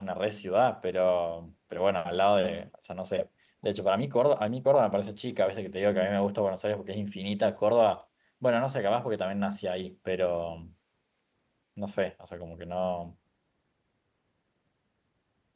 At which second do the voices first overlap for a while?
none

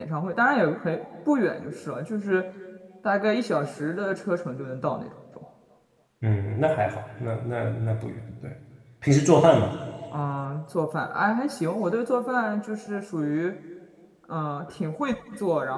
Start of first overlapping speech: none

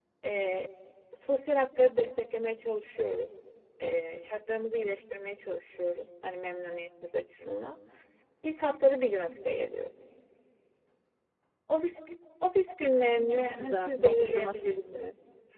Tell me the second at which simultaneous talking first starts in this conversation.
13.3 s

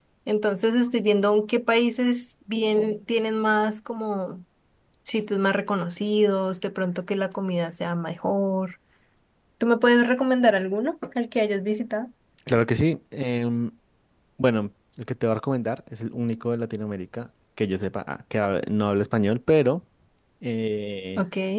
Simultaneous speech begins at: none

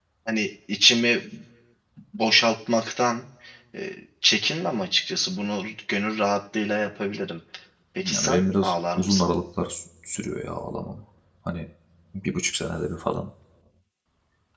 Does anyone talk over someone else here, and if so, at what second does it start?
8.1 s

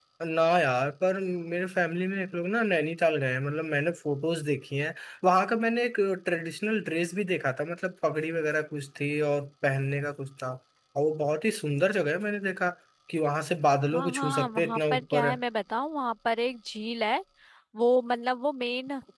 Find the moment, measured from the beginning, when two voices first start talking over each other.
13.9 s

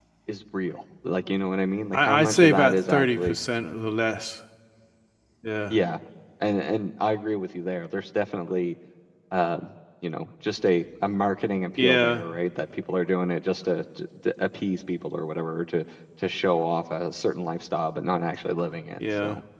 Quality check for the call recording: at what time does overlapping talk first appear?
1.9 s

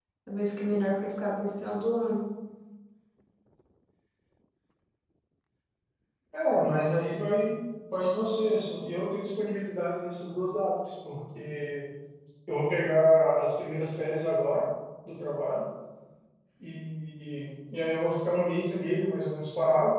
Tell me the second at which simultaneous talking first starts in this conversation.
none

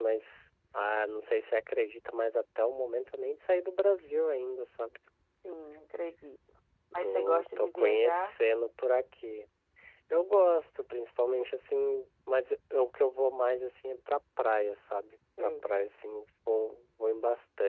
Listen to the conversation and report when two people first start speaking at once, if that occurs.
7.0 s

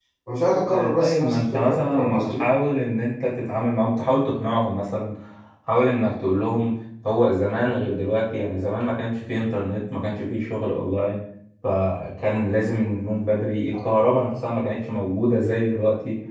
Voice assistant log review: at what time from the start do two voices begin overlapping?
0.7 s

